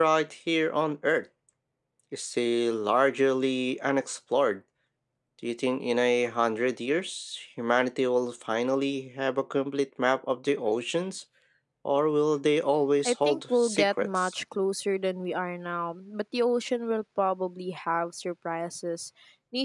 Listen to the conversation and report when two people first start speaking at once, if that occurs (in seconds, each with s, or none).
13.0 s